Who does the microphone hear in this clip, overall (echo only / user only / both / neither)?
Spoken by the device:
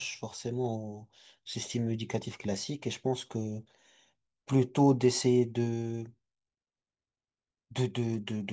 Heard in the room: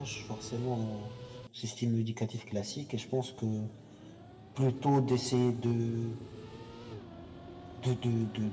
echo only